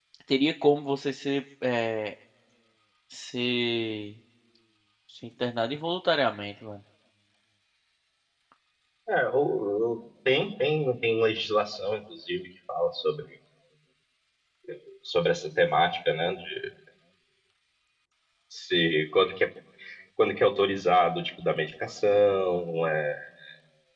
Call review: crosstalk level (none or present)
none